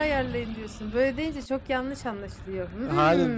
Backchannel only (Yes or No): No